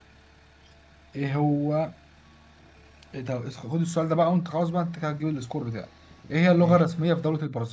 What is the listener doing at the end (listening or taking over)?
listening